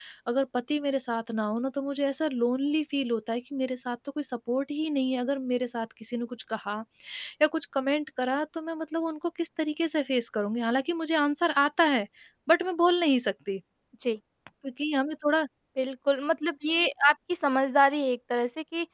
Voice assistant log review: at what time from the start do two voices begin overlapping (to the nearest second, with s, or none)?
none